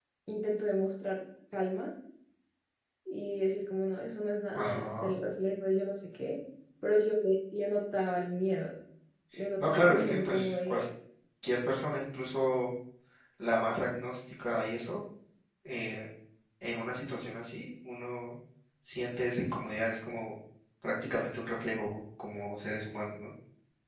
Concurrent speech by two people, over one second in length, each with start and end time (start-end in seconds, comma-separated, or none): 9.6-10.8